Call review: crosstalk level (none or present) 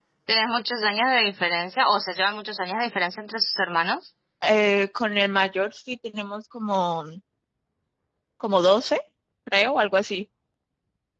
none